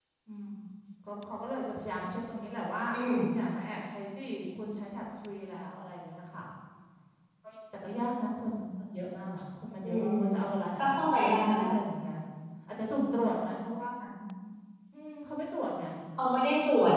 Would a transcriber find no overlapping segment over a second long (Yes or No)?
Yes